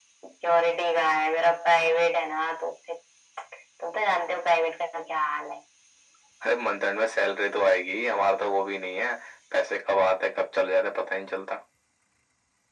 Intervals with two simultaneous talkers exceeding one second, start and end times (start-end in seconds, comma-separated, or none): none